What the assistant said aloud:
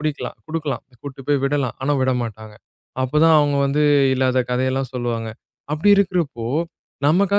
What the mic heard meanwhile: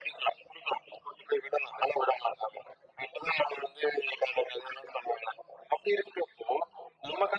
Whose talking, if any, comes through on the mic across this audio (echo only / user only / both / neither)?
echo only